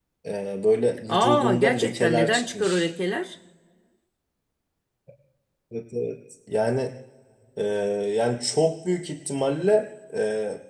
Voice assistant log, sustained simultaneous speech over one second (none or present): present